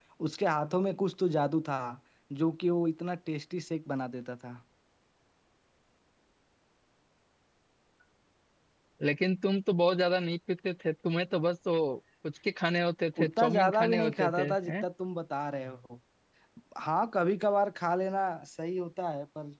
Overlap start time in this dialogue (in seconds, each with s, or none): 13.2 s